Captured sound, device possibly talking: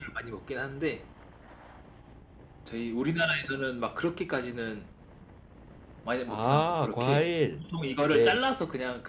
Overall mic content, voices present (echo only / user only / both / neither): both